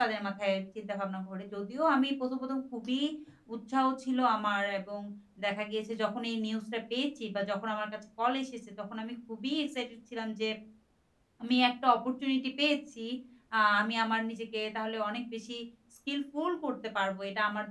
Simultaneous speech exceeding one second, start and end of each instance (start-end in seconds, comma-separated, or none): none